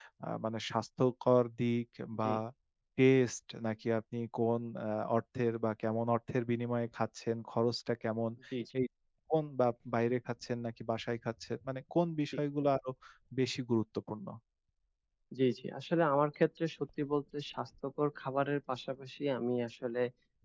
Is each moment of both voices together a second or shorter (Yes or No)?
Yes